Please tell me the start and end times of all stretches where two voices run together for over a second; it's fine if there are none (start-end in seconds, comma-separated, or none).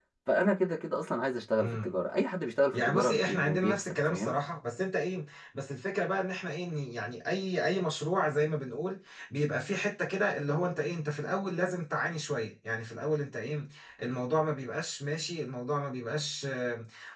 2.7-4.3